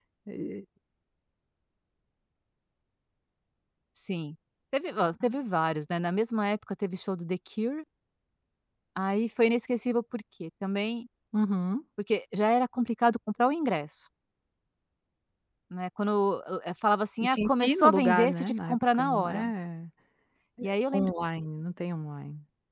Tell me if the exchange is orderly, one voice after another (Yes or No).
No